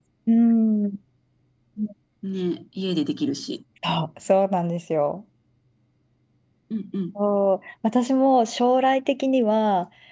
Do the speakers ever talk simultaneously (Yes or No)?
No